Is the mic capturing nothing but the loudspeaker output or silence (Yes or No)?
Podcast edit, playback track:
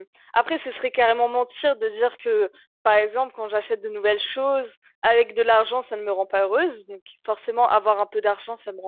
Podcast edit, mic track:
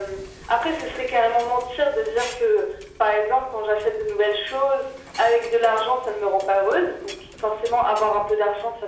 Yes